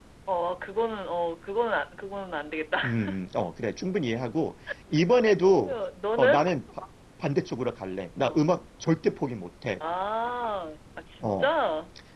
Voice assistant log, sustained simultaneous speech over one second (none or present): none